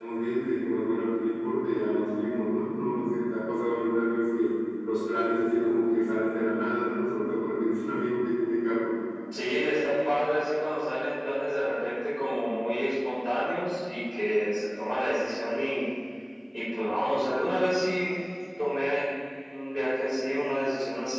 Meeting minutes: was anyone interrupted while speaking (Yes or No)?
No